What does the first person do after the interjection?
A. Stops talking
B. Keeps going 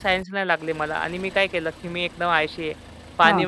B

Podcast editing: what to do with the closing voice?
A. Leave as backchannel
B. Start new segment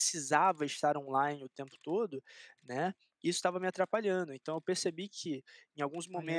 A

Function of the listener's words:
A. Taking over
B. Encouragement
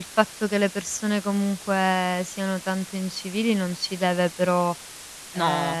B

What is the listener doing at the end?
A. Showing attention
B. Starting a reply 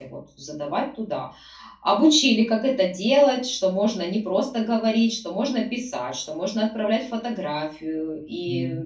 B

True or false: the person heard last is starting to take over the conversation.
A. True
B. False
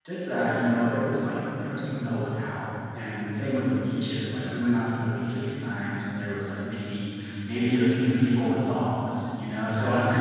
B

